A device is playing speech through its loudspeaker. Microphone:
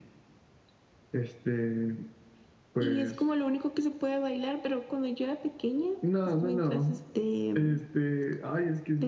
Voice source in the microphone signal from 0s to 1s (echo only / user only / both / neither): neither